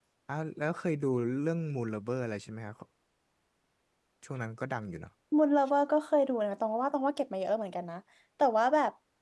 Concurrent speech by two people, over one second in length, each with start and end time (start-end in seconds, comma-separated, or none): none